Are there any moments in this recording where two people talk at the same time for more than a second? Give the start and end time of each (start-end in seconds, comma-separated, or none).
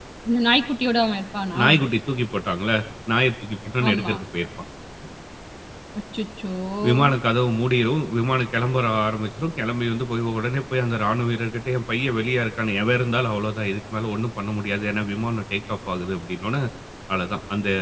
none